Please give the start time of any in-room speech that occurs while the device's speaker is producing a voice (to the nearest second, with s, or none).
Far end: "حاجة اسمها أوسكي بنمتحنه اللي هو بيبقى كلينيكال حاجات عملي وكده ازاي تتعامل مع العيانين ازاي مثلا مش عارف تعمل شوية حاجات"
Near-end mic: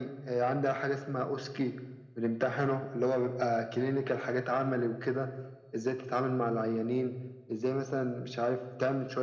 none